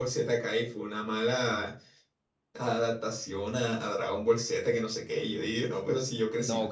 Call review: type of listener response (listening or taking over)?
taking over